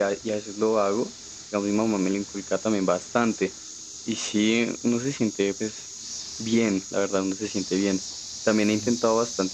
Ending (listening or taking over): listening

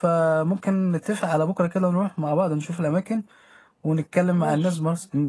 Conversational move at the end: listening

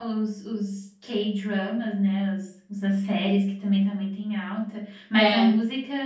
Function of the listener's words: listening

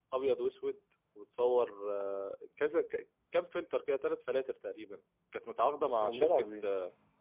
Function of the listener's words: listening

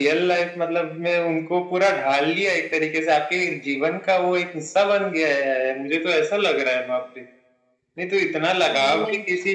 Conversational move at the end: listening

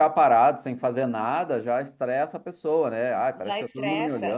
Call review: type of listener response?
taking over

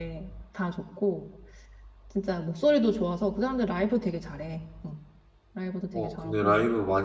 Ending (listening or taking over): taking over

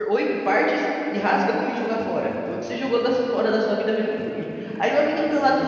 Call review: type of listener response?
listening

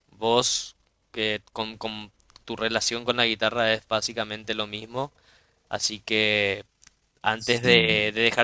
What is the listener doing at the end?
listening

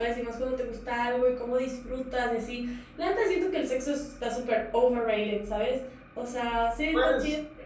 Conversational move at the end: taking over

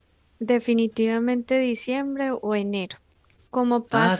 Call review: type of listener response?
listening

